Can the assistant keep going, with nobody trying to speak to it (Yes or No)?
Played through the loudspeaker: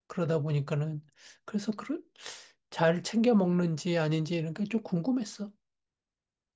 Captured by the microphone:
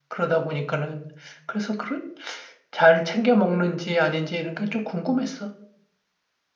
Yes